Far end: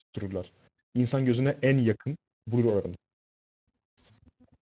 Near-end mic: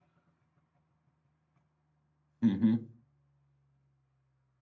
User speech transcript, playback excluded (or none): Hı hı.